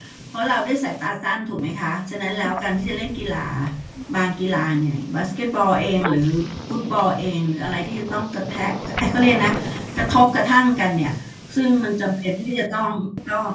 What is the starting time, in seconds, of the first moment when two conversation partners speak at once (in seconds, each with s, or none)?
none